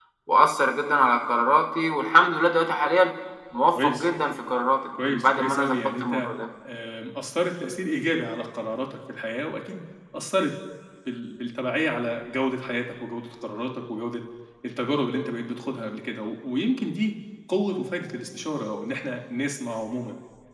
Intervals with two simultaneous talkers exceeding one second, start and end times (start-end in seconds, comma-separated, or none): 5.1-6.3